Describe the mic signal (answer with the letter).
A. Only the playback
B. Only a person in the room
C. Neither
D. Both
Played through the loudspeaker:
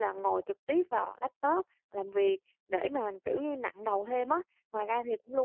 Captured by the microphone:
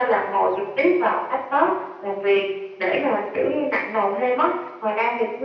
A